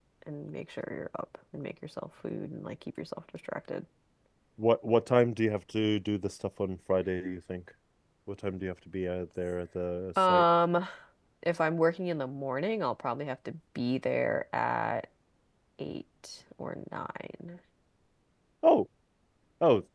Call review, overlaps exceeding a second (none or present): none